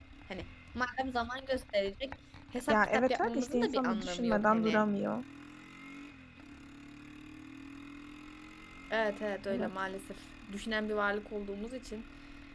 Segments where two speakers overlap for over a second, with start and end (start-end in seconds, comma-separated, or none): 2.7-4.8